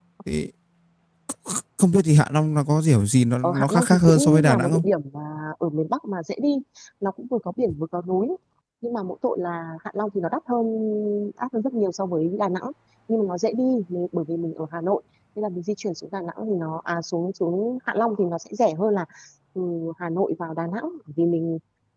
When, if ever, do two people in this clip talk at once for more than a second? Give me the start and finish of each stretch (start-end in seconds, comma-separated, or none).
3.4-4.8